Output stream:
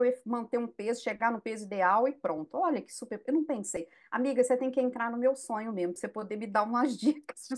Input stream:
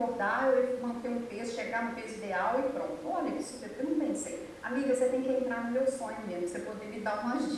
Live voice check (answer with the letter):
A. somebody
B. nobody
B